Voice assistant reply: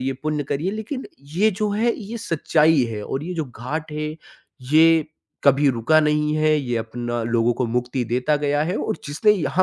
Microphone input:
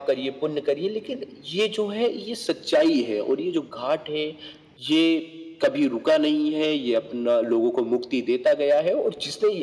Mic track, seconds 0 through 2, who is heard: echo only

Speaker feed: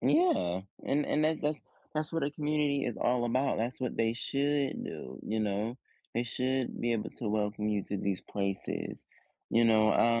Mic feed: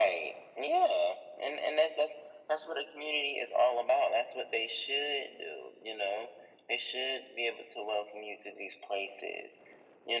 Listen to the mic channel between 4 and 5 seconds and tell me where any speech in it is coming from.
echo only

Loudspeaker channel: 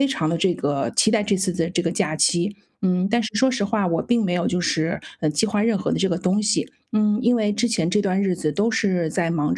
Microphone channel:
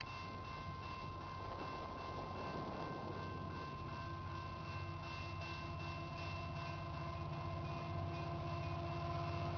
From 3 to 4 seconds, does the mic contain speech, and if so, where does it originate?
neither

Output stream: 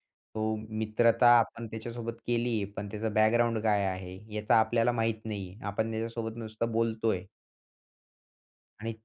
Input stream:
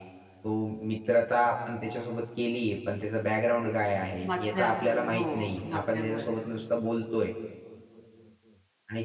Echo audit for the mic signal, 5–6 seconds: both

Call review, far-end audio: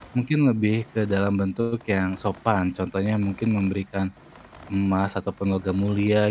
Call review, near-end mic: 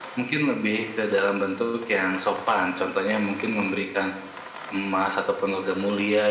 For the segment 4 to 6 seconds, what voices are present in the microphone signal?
echo only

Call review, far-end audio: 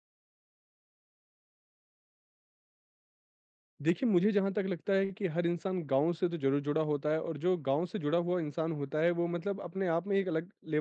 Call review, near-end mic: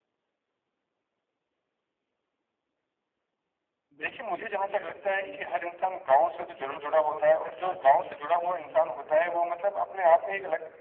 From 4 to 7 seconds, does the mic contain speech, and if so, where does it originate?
both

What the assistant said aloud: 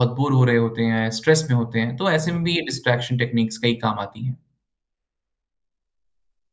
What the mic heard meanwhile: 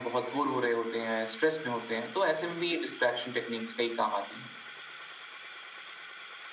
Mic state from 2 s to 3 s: echo only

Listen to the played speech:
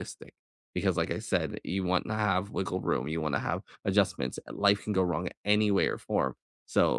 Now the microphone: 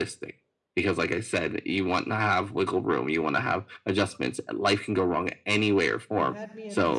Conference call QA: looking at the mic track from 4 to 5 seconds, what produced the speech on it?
echo only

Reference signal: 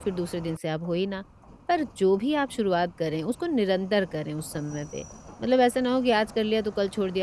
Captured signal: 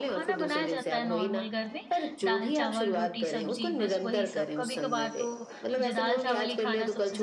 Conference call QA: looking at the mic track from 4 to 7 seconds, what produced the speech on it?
both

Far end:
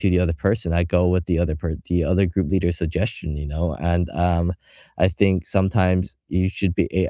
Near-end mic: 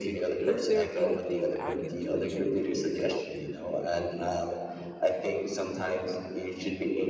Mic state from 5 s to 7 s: echo only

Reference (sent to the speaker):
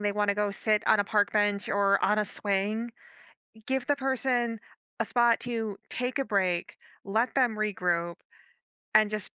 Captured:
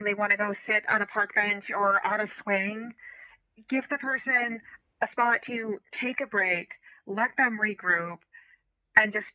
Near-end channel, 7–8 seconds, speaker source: echo only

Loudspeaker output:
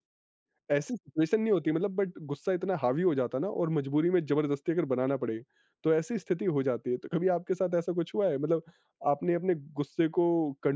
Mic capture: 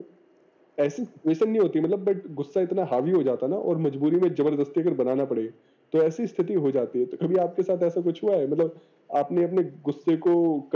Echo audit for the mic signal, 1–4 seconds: echo only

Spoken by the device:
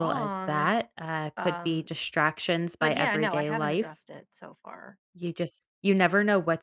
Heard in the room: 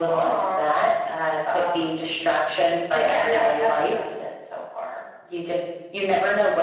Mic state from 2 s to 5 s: echo only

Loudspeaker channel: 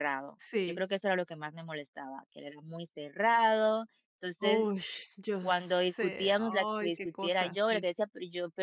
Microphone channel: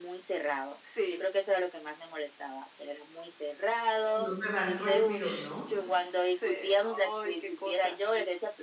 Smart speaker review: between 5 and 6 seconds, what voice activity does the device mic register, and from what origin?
both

